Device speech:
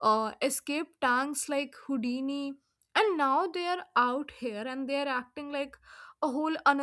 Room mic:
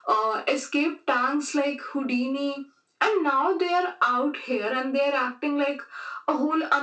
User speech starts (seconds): none

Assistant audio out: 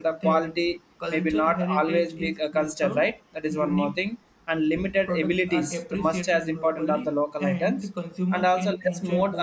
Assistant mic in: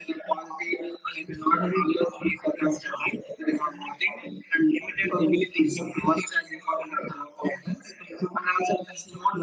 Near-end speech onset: none

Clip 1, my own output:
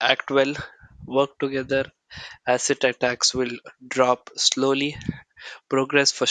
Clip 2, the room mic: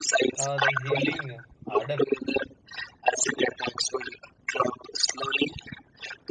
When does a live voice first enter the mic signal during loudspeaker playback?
0.3 s

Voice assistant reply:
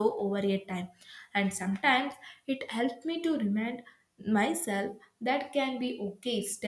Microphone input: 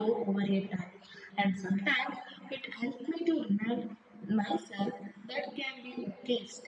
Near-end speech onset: none

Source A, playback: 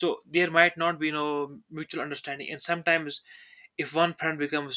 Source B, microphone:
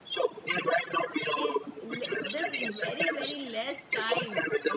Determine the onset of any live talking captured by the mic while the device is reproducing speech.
1.3 s

